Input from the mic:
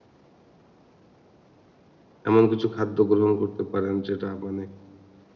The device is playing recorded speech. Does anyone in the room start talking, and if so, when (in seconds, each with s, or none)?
2.3 s